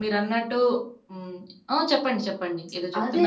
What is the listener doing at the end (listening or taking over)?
taking over